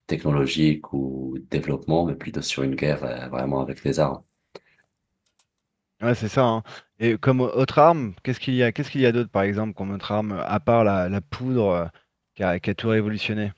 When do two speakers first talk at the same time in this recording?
none

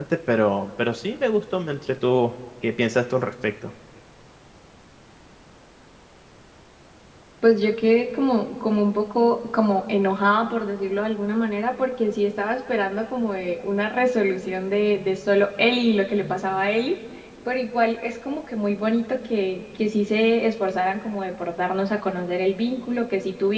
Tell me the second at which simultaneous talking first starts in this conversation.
none

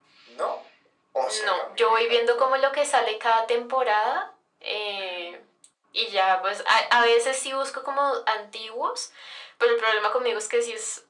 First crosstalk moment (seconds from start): 1.2 s

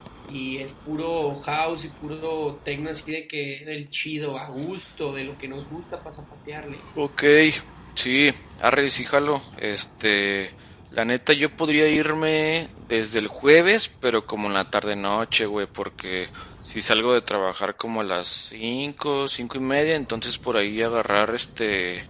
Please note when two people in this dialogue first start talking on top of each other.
none

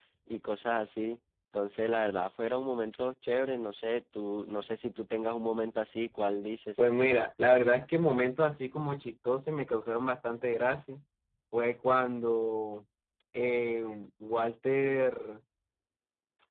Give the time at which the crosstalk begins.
none

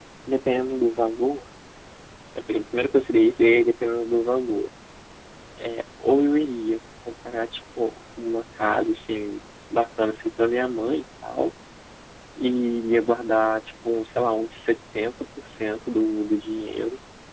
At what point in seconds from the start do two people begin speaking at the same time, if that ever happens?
none

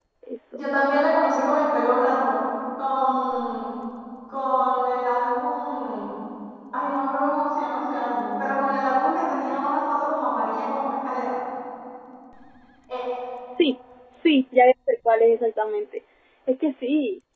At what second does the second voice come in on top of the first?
none

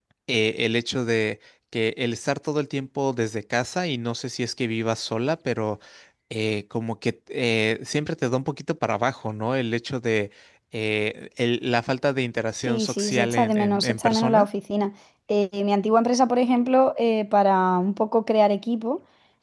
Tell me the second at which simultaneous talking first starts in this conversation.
12.7 s

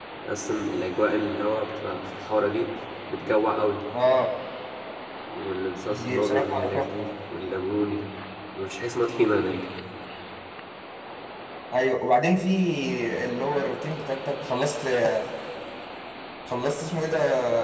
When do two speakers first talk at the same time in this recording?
5.9 s

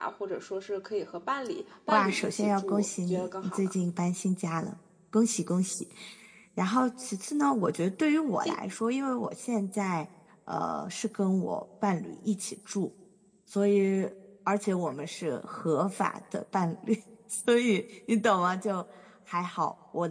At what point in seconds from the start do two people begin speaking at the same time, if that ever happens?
1.9 s

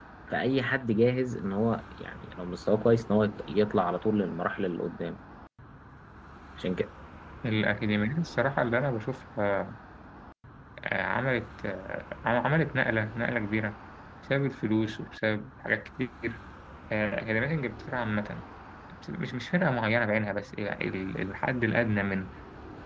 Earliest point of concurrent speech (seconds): none

